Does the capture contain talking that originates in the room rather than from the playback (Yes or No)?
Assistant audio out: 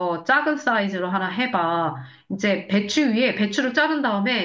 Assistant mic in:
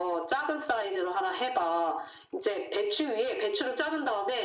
No